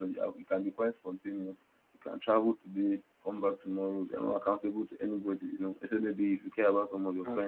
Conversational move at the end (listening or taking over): listening